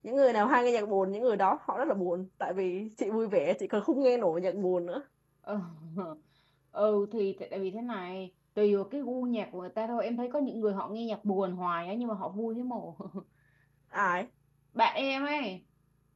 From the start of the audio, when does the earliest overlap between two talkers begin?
none

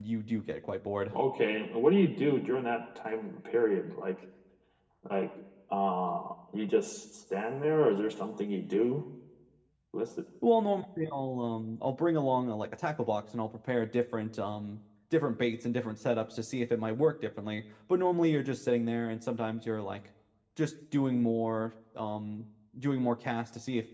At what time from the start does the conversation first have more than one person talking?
none

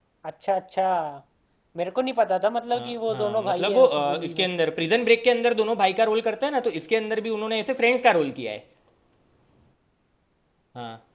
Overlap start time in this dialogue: 3 s

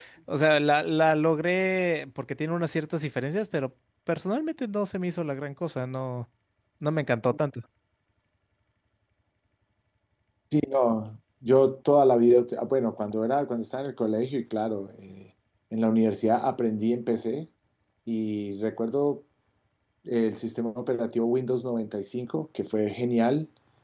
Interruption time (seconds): none

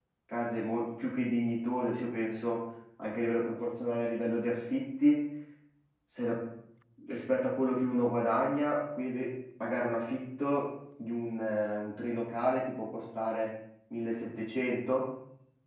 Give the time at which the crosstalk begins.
none

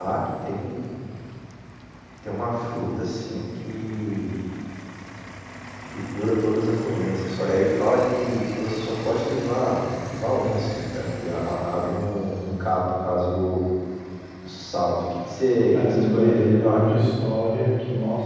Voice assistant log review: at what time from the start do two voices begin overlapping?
16 s

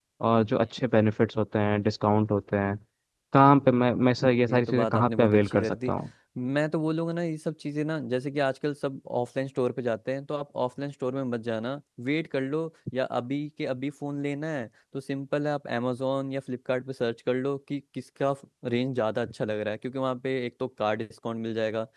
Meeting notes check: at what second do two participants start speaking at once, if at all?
4 s

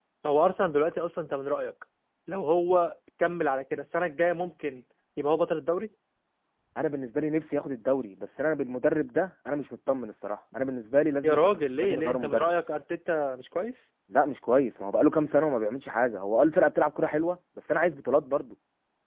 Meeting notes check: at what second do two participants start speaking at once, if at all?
11 s

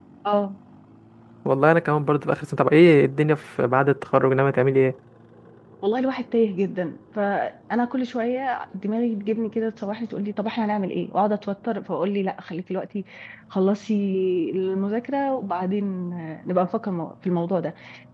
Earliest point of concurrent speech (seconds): none

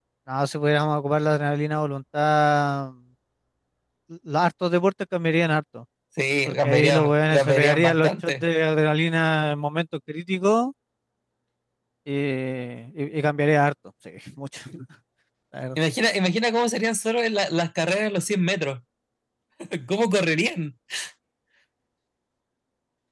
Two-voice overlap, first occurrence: 6 s

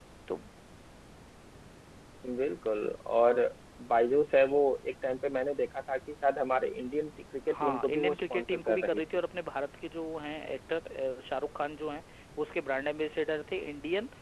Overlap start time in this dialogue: 7 s

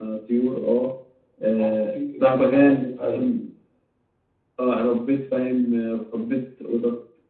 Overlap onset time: 2 s

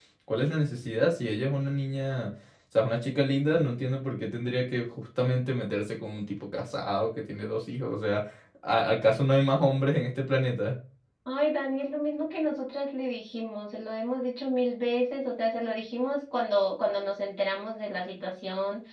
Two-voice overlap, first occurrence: none

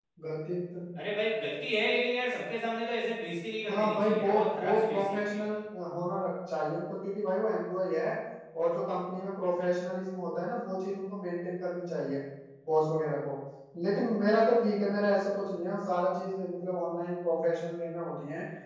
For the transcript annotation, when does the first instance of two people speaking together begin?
4 s

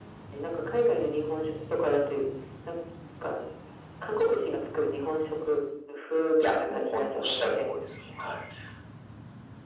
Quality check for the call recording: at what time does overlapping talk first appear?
6 s

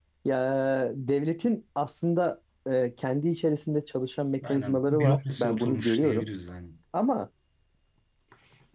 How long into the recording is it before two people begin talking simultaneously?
4 s

